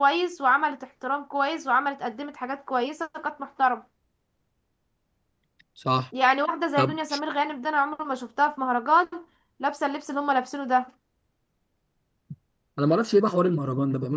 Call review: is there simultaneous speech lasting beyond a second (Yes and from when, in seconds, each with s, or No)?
No